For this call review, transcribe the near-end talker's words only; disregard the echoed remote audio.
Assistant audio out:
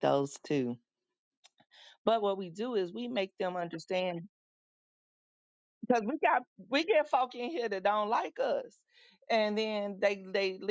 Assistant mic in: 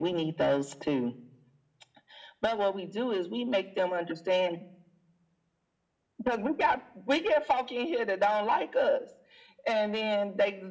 none

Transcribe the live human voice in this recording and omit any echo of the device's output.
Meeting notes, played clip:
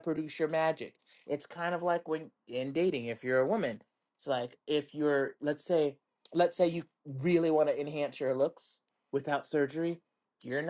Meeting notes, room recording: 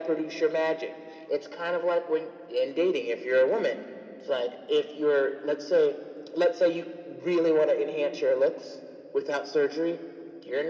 none

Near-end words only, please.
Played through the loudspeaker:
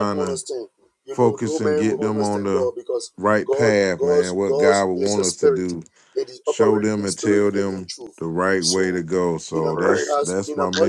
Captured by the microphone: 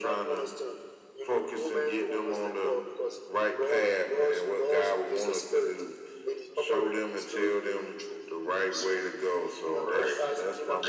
none

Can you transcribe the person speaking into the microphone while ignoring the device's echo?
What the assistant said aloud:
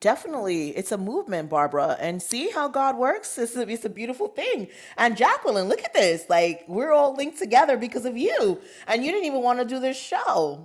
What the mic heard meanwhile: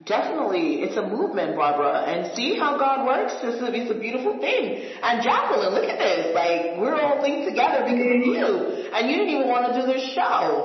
see

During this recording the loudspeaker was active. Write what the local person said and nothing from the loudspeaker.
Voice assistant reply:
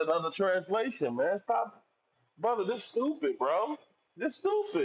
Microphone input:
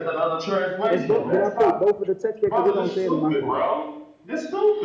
As both did I put both of the text there because it don't say it in my phone?

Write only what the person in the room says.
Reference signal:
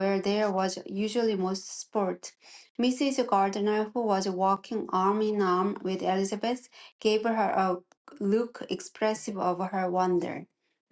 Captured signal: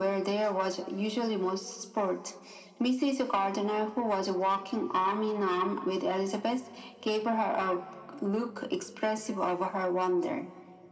none

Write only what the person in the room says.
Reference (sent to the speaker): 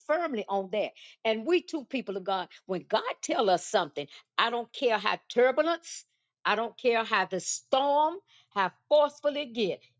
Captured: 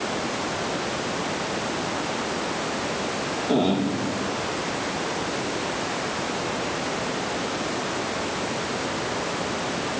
mm,

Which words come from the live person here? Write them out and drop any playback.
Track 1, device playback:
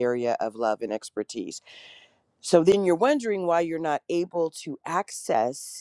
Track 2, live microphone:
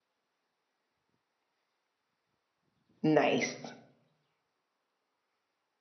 nice.

